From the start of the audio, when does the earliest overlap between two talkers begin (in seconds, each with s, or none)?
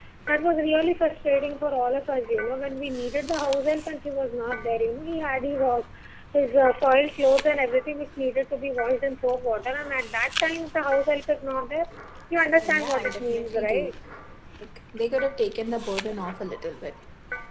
12.6 s